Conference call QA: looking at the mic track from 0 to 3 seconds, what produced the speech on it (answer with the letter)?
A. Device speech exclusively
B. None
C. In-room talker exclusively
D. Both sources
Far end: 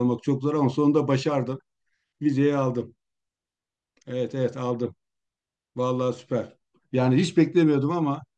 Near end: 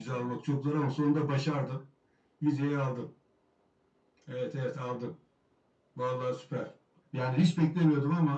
A